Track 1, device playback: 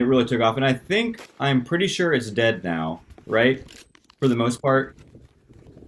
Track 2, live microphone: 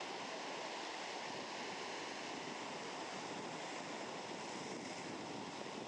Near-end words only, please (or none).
none